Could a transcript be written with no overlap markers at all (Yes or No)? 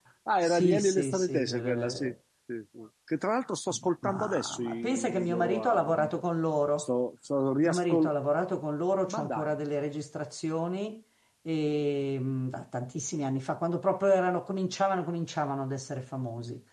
No